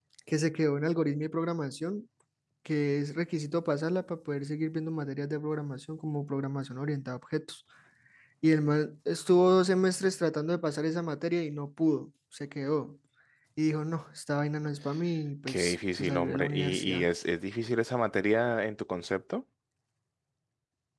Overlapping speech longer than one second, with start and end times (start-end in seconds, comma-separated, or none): 15.5-17.1